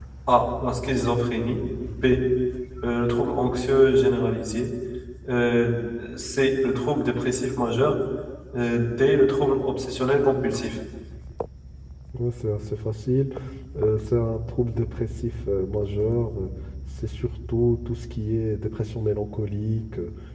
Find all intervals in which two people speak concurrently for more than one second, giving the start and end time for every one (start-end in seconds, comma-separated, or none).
none